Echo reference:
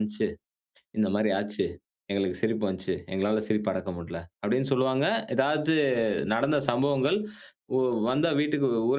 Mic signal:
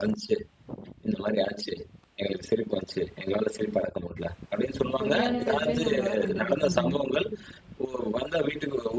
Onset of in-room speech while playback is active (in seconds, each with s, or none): 5.0 s